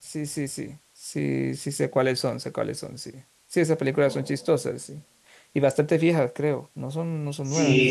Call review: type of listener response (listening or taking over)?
taking over